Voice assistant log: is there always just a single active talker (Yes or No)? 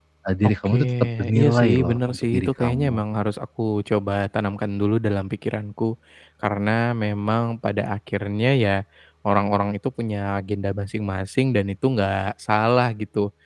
No